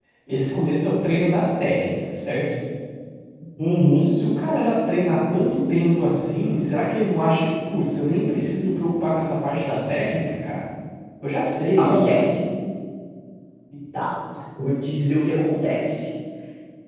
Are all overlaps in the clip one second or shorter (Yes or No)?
Yes